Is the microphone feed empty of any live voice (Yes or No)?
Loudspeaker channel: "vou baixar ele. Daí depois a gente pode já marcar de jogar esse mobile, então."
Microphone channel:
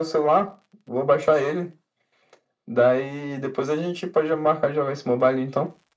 Yes